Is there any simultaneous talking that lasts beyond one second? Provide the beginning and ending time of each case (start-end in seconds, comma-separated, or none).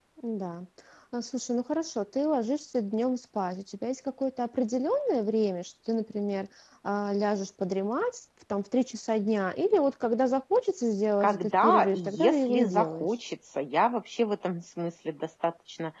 11.2-13.2